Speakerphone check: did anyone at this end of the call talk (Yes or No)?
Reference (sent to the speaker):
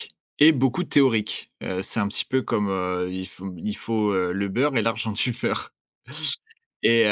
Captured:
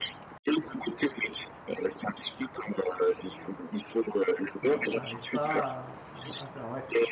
Yes